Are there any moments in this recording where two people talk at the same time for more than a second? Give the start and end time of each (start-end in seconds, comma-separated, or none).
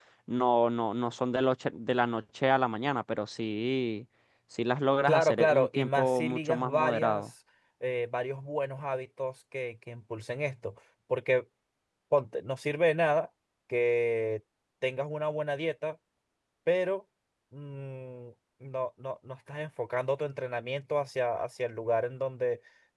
5.0-7.2